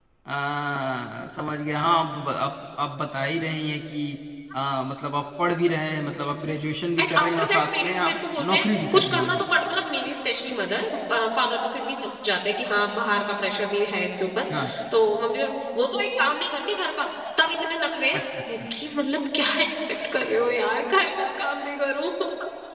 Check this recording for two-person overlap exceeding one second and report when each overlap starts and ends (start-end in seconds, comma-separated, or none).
7.0-9.4